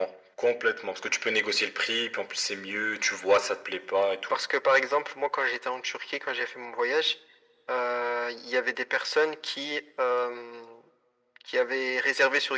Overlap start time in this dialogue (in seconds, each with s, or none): none